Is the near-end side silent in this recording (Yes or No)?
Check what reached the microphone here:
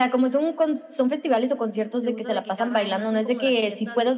No